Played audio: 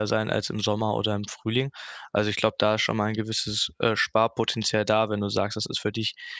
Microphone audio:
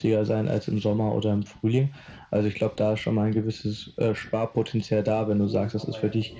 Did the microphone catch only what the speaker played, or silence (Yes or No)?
No